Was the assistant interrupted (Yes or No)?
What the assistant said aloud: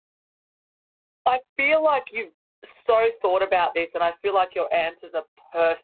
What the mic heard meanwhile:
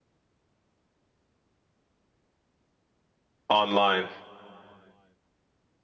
Yes